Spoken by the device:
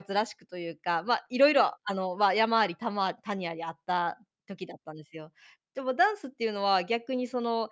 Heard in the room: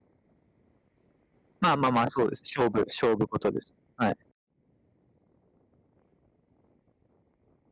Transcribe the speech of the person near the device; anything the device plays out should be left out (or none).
まあまあまあ、そうです。勝負勝負事です。はい。